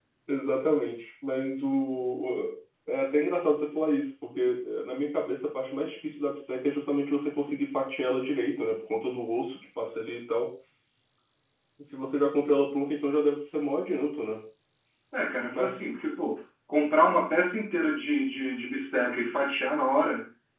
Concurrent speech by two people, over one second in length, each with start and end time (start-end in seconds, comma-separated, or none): none